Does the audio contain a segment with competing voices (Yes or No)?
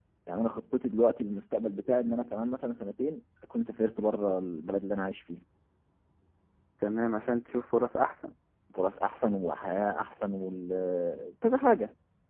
No